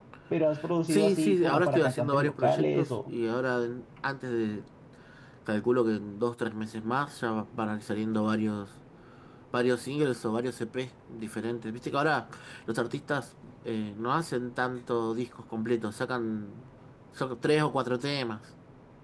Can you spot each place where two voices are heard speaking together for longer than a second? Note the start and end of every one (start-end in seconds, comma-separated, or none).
0.9-3.1